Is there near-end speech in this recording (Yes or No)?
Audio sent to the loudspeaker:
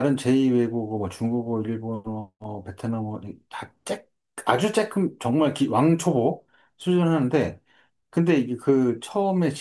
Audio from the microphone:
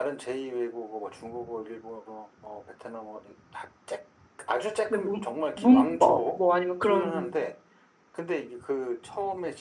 Yes